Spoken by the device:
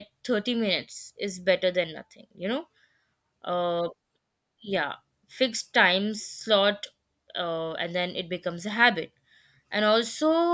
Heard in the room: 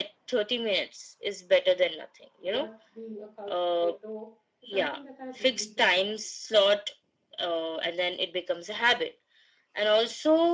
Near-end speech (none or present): present